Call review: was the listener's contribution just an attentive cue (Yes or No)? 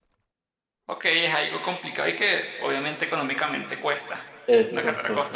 No